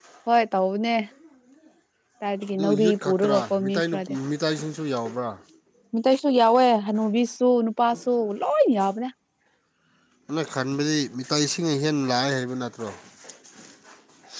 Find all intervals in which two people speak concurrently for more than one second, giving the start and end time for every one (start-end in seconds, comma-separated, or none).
2.5-4.2